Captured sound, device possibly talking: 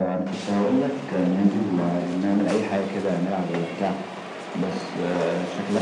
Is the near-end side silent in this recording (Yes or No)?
Yes